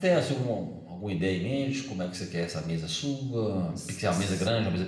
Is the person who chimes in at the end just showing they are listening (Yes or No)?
Yes